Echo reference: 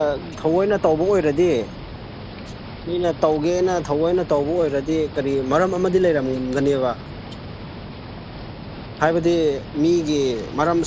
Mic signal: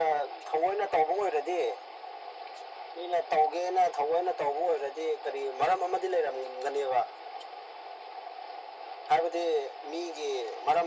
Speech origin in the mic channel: echo only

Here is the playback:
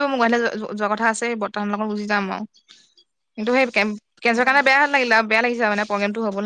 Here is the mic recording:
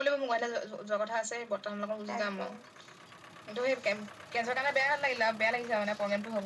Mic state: both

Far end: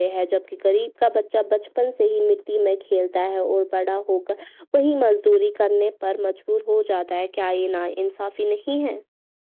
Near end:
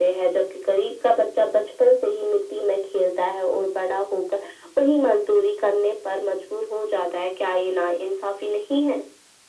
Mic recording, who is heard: echo only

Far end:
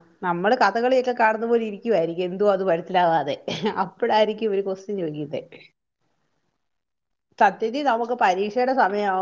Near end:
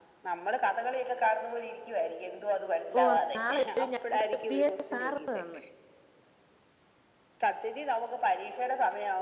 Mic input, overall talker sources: both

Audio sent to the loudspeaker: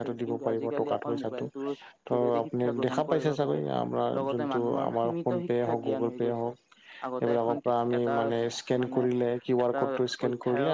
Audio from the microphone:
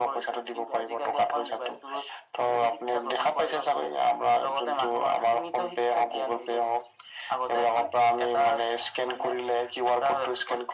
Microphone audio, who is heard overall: echo only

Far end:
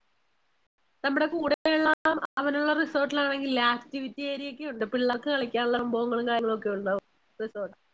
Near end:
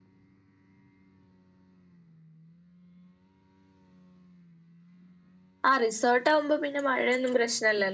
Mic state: user only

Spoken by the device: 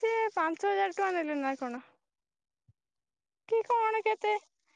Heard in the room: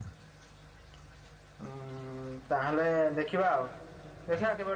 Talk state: user only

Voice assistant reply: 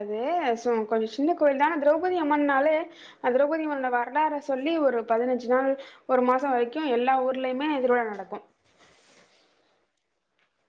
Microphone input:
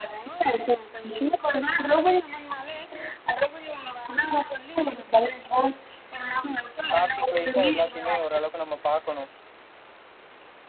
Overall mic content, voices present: both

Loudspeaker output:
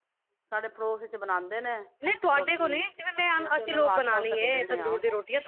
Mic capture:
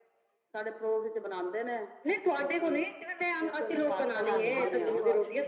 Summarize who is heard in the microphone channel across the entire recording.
both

